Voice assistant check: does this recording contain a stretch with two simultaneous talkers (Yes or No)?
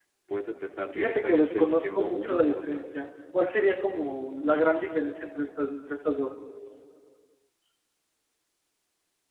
Yes